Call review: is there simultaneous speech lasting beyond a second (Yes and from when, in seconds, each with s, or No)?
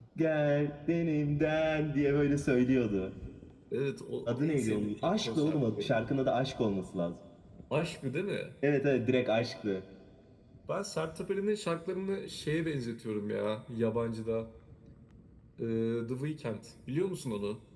Yes, from 4.3 s